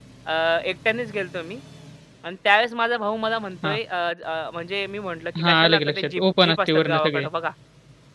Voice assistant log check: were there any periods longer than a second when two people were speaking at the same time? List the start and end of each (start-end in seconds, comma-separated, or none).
5.4-7.3